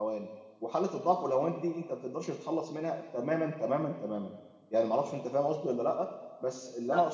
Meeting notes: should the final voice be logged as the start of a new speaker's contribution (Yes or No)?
No